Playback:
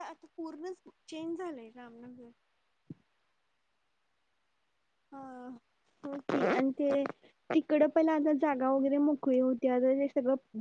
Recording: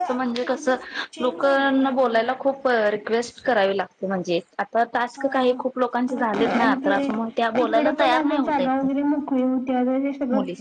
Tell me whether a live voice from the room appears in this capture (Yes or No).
Yes